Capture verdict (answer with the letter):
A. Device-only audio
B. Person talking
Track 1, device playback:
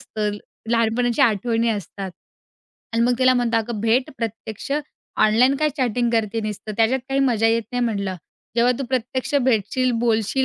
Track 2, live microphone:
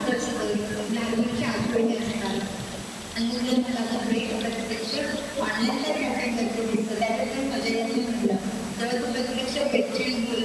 A